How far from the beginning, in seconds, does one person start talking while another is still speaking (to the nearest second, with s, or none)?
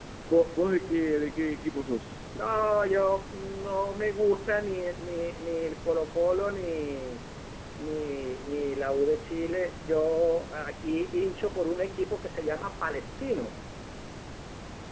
none